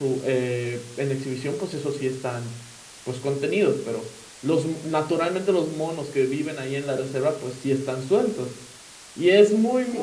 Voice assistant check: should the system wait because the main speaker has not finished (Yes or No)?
Yes